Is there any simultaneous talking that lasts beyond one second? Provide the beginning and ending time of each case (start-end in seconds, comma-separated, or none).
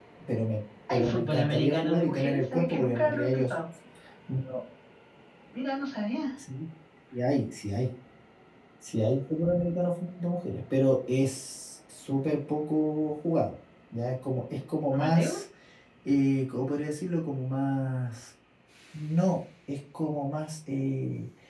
0.9-3.4